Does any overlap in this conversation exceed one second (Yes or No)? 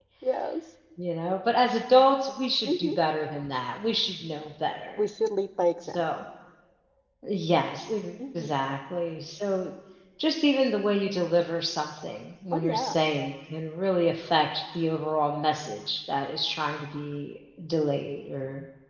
No